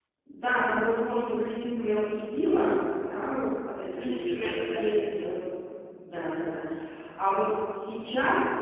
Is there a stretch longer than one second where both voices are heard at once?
Yes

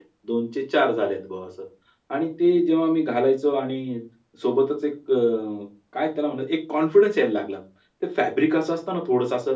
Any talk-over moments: No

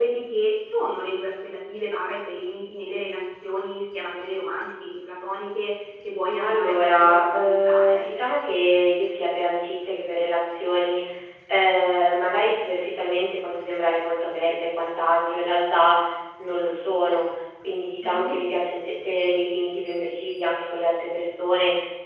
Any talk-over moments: Yes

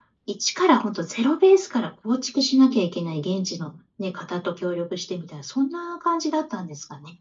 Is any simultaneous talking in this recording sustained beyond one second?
No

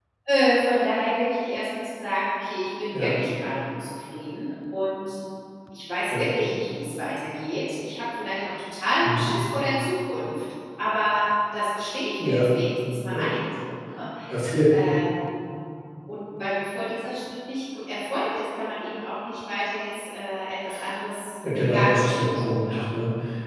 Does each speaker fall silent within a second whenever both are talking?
No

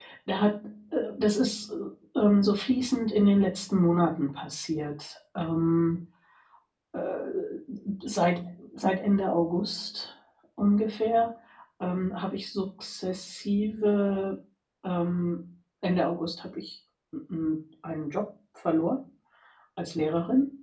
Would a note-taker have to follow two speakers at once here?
No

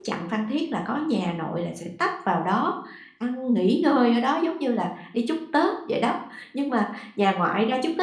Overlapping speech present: No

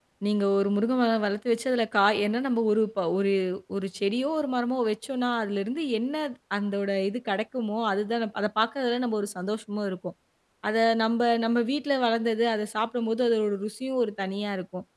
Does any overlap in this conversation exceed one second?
No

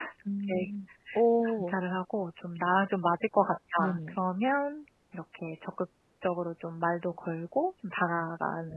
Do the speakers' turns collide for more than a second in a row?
No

